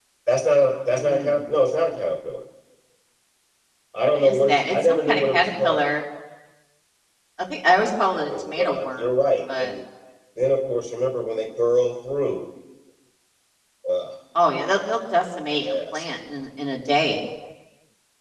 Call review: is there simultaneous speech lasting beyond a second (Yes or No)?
Yes